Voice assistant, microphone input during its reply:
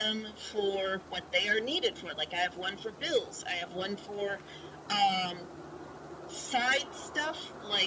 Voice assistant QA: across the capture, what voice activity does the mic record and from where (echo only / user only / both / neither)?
echo only